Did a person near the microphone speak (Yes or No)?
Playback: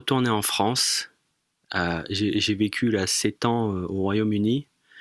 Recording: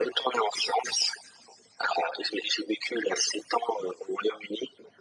No